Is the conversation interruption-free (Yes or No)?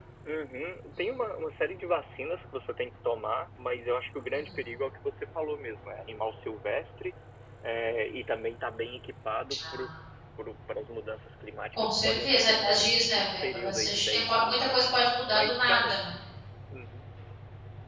No